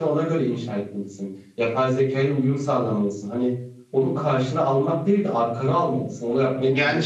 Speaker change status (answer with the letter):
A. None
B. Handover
B